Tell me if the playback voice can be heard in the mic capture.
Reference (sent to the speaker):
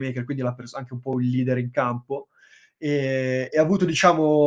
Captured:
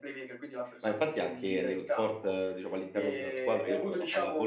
Yes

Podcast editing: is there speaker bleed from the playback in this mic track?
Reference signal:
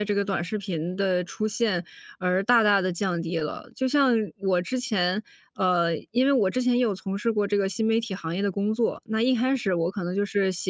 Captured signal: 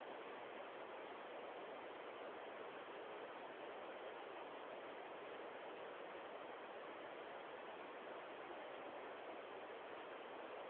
No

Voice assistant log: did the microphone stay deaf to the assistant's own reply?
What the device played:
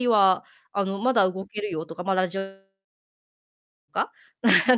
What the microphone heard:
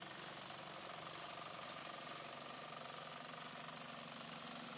Yes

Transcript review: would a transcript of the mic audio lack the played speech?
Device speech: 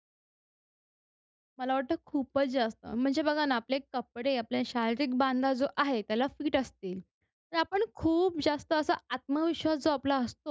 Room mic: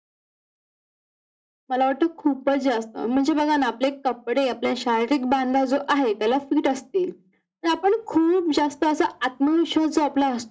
No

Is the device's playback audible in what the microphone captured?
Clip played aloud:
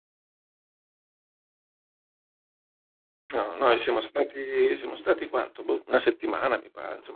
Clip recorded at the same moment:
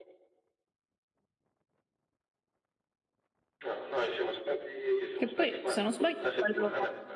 Yes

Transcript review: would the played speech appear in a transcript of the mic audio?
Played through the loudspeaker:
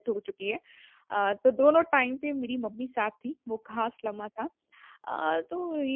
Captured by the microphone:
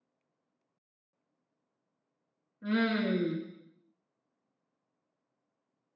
No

